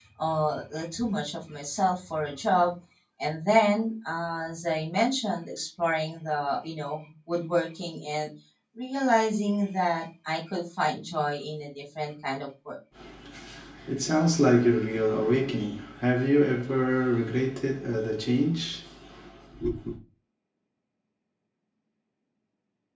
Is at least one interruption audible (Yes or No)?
No